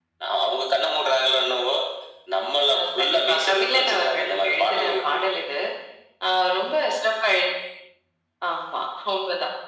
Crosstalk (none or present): present